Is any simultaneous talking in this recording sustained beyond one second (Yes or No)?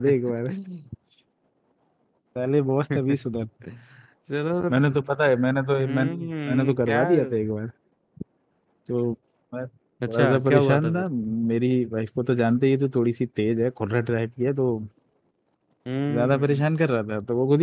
Yes